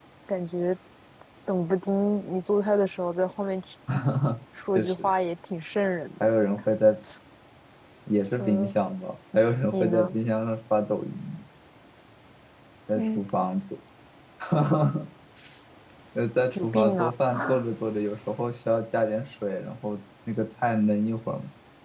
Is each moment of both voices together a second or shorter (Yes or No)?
Yes